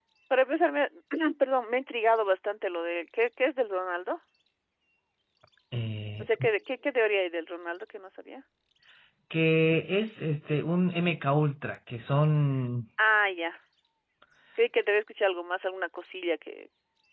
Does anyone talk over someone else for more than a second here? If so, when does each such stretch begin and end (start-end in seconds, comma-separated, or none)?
none